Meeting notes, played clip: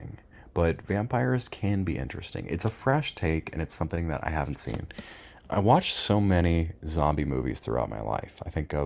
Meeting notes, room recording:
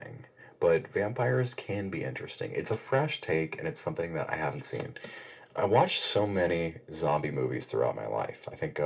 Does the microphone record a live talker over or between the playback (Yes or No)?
No